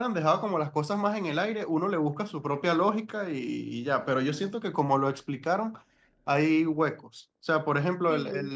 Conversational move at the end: listening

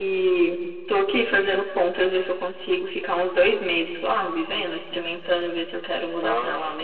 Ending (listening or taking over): taking over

